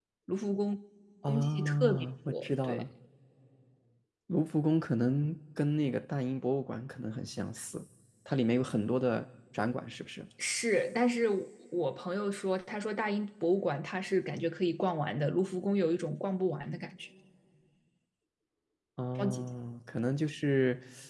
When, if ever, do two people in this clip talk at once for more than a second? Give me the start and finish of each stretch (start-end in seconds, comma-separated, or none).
1.3-2.8